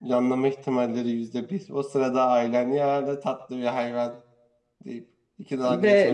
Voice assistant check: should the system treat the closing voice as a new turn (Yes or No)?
Yes